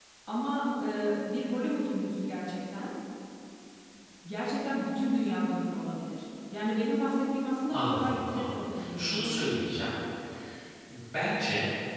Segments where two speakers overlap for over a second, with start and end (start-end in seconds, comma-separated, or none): 7.7-9.5